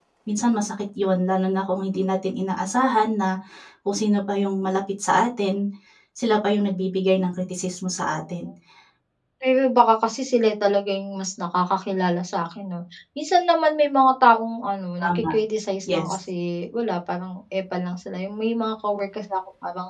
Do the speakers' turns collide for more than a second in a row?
No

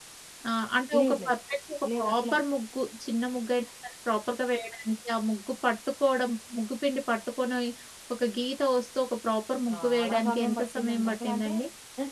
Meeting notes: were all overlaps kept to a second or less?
No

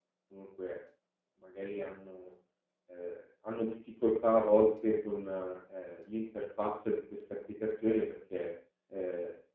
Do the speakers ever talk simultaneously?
No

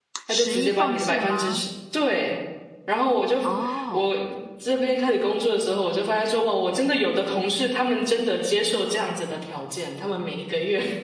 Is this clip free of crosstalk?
No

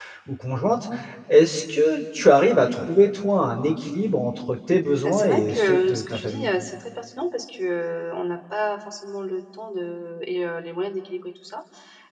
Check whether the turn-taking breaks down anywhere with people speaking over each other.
Yes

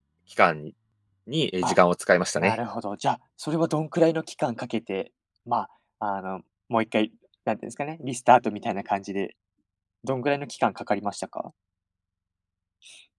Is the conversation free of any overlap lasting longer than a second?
Yes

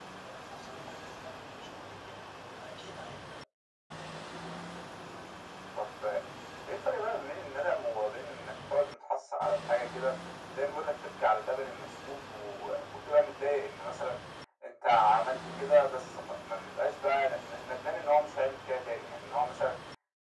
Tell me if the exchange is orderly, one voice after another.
Yes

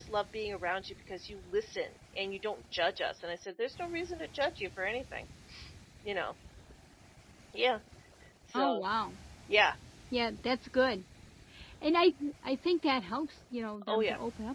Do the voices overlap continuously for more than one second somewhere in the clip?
No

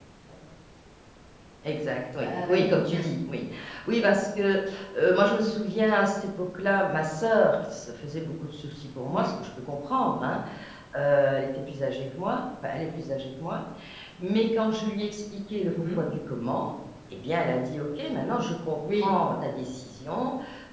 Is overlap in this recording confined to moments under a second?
Yes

